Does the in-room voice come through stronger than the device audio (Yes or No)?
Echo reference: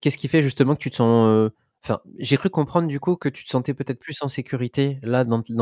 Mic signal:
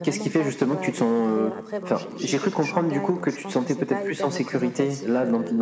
No